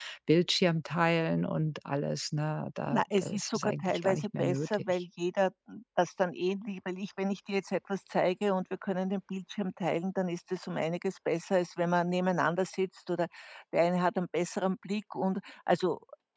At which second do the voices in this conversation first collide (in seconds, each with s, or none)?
2.9 s